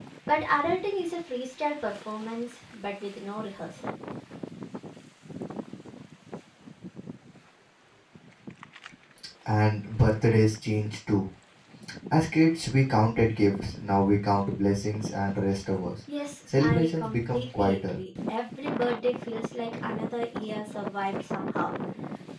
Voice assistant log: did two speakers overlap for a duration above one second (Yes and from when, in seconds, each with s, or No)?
Yes, from 16.6 s